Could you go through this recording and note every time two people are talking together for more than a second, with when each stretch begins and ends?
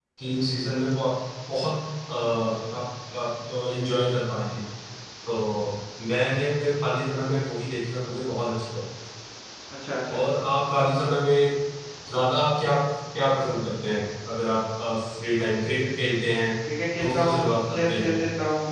17.0-18.2

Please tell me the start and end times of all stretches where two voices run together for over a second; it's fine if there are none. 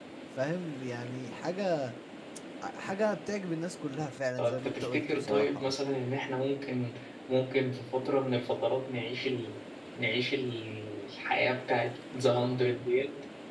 4.4-5.8

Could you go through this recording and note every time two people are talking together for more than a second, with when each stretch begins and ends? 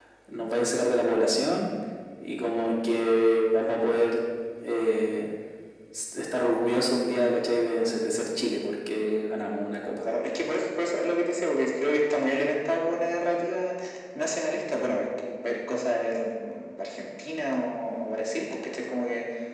none

